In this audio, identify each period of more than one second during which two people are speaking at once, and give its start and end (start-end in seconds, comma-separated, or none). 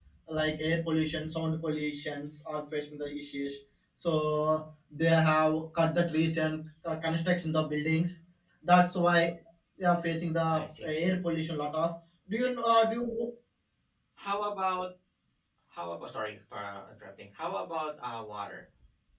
none